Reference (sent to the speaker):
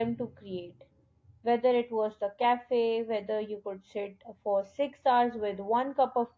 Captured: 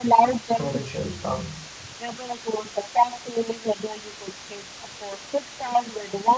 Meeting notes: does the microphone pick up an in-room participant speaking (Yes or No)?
Yes